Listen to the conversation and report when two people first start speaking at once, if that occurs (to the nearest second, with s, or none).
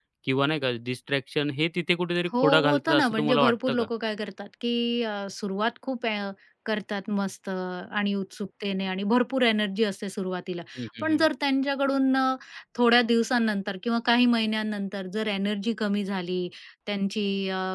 2 s